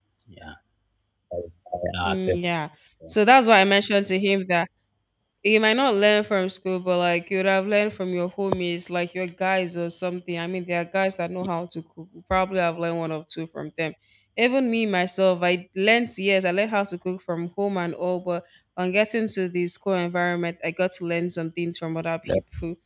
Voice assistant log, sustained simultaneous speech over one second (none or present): none